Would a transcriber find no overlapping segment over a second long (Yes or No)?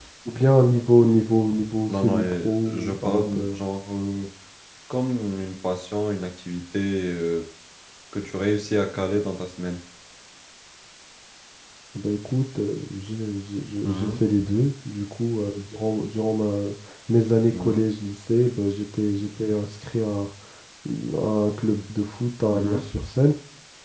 No